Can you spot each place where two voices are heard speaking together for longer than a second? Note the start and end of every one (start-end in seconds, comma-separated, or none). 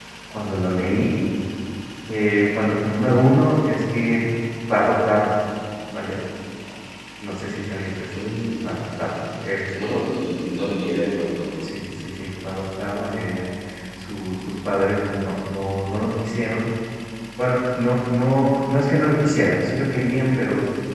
none